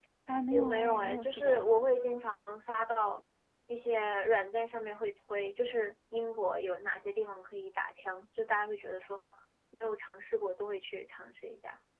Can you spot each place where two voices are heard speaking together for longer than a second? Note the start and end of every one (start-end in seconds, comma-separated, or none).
0.5-1.9